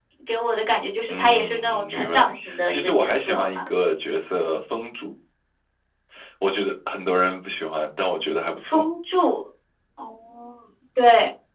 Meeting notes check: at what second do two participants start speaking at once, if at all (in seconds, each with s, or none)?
1.1 s